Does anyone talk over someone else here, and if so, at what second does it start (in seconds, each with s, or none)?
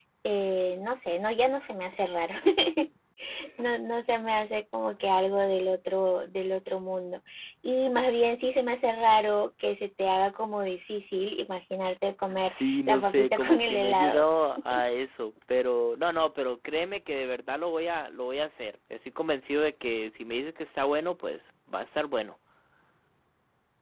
12.3 s